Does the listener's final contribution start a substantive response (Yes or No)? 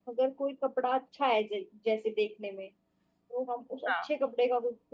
No